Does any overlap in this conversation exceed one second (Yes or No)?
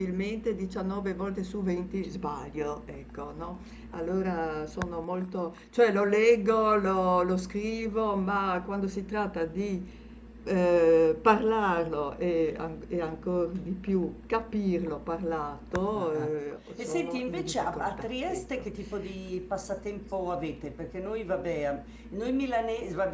Yes